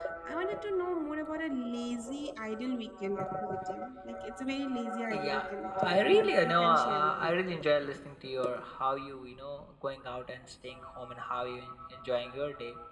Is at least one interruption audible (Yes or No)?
Yes